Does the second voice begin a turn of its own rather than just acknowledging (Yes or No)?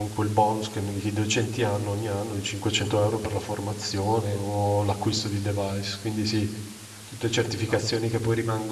No